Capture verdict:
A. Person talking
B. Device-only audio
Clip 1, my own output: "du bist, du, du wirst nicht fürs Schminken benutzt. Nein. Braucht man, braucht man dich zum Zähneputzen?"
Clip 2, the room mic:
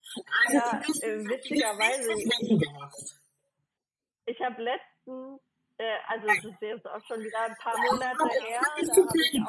A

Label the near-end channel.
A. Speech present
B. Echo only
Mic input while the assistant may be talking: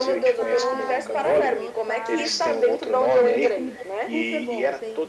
A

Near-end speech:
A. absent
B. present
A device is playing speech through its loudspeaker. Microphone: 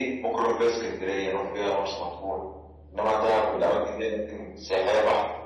A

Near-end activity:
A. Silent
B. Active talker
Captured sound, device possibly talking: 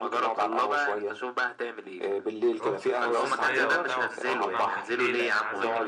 B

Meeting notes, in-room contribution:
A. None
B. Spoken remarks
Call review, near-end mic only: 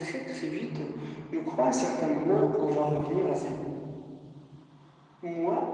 A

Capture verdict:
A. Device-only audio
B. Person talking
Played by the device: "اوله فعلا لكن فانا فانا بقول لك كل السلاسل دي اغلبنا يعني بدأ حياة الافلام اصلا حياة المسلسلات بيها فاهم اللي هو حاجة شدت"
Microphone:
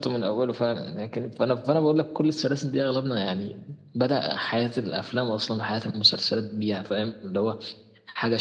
A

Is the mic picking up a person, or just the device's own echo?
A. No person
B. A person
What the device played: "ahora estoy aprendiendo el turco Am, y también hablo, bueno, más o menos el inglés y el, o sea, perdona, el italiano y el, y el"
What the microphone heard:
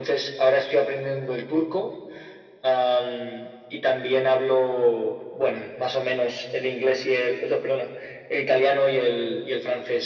A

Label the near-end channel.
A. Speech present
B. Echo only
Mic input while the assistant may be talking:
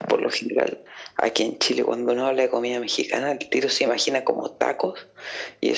B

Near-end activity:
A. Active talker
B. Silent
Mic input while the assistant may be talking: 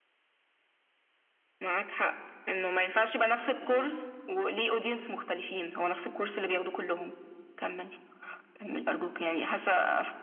A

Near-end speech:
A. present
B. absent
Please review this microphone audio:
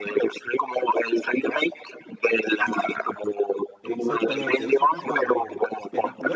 A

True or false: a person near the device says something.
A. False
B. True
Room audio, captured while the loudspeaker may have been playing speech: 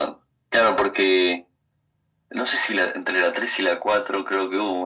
A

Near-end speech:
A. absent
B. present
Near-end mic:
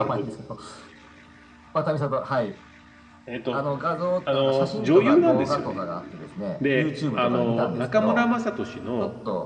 B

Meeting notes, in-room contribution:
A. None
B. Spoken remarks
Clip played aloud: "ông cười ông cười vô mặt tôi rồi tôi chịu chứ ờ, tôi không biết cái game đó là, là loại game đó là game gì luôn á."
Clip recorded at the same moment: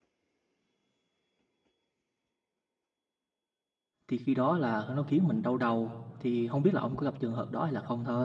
B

